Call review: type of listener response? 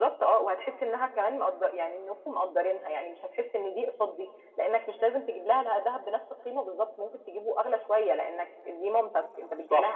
taking over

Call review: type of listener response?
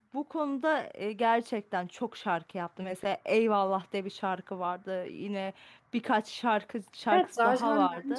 taking over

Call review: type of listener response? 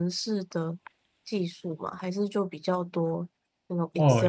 taking over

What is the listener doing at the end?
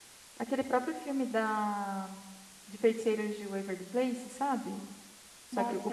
taking over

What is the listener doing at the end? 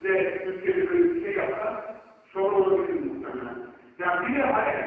listening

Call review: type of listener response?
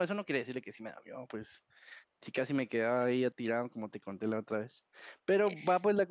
listening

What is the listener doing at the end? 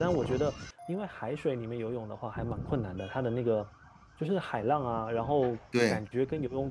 listening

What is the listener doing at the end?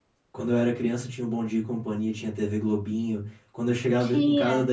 listening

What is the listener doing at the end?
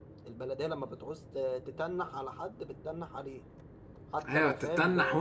taking over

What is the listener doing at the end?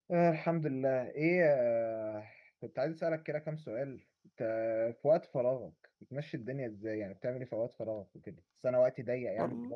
listening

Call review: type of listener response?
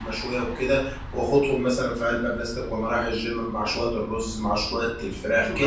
taking over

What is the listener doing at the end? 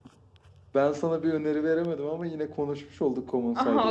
taking over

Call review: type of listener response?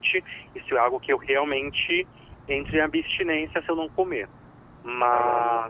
listening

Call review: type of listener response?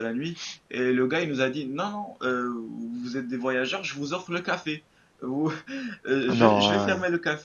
listening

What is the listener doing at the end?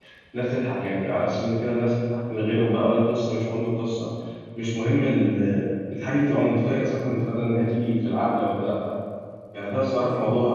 listening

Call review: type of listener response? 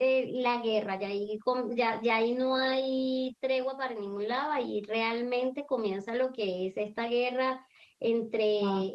listening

